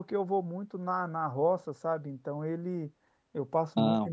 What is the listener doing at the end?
listening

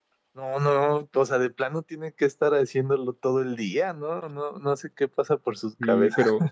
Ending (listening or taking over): taking over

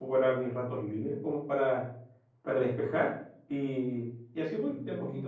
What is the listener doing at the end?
taking over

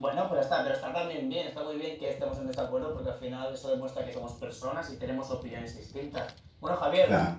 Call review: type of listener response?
listening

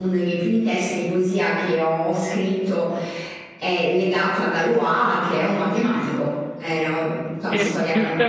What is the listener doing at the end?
taking over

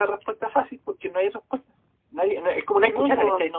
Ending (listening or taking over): listening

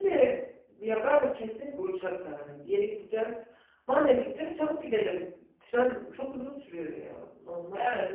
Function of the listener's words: taking over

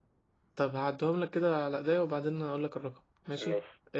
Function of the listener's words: listening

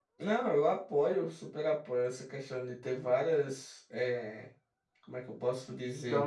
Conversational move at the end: taking over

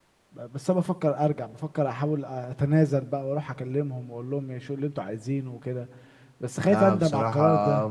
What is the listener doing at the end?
taking over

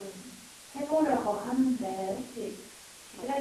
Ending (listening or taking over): listening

